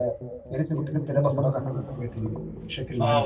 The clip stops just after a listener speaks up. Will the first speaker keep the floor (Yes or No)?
No